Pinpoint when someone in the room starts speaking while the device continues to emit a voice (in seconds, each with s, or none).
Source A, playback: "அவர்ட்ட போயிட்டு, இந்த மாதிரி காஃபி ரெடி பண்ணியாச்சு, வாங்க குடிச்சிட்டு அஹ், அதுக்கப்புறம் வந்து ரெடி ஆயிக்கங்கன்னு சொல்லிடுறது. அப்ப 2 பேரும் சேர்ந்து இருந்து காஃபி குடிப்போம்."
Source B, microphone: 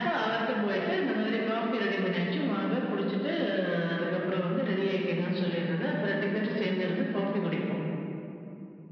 none